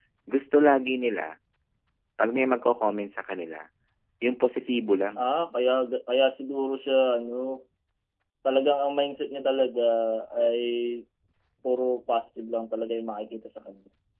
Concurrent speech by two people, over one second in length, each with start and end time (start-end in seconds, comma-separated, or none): none